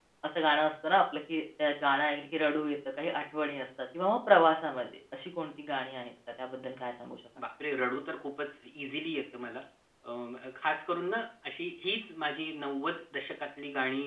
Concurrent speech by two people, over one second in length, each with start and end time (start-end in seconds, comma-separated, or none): none